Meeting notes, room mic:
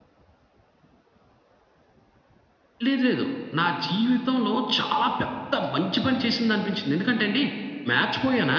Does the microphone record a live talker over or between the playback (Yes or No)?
No